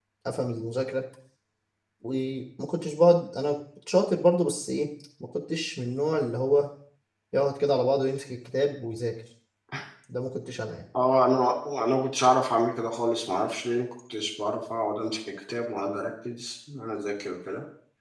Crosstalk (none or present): none